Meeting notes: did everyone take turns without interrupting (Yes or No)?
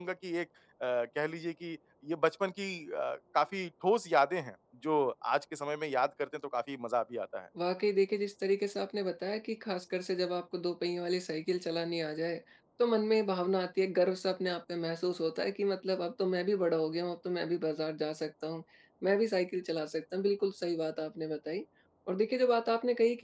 Yes